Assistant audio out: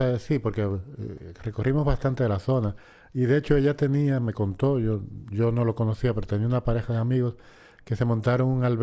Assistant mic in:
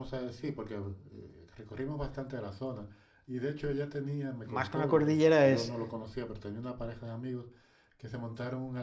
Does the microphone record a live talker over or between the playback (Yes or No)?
Yes